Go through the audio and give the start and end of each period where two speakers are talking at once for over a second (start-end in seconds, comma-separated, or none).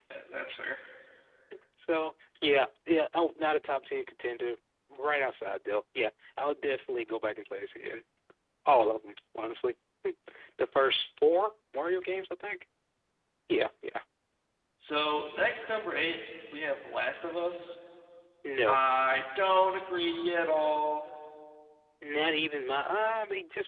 none